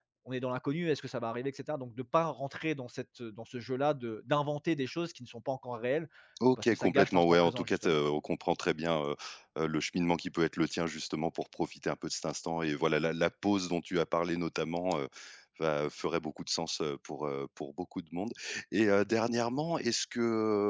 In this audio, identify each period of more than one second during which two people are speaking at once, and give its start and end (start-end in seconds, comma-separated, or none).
6.6-8.0